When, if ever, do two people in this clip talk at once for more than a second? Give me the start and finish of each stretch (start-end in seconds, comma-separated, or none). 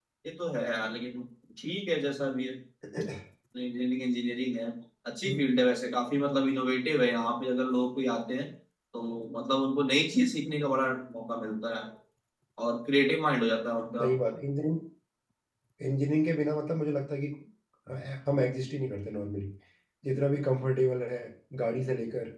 none